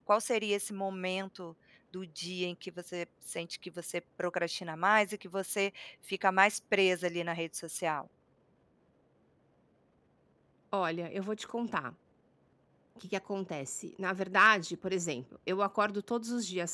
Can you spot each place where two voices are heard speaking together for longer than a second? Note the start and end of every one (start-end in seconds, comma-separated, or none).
none